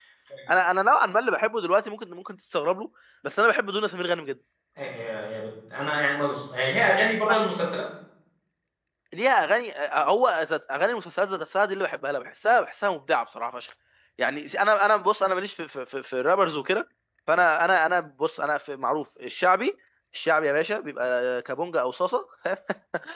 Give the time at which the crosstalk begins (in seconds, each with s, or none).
none